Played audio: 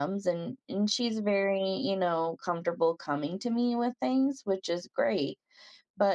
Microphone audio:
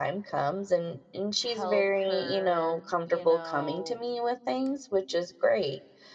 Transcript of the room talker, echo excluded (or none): help her, you know,